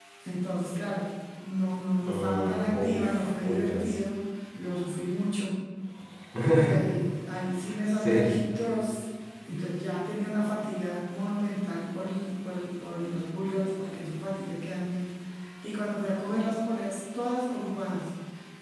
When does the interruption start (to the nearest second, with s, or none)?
2 s